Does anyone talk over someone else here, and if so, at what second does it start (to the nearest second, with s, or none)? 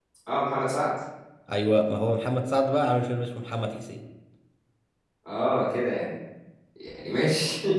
none